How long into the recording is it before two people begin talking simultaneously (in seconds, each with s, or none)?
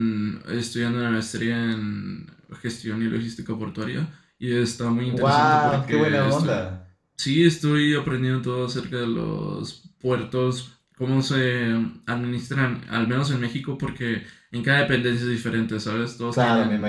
5.1 s